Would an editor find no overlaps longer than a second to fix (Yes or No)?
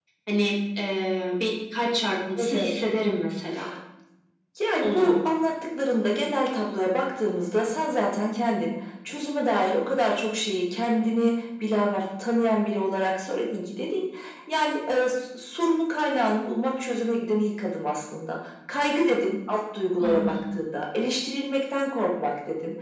Yes